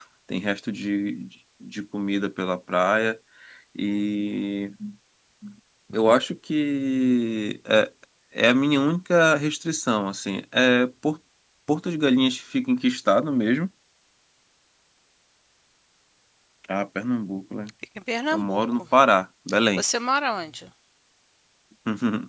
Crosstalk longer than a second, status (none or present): none